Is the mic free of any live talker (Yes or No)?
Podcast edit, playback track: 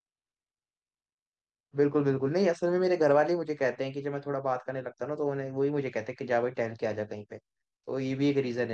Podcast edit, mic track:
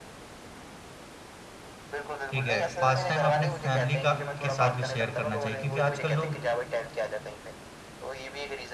No